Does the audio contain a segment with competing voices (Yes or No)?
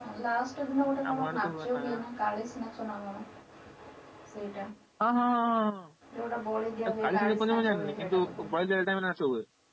Yes